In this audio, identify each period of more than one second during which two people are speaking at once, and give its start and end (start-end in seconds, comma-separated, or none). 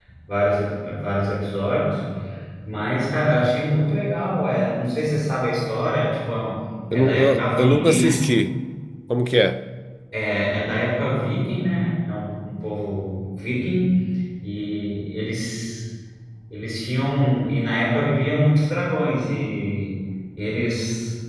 6.9-8.2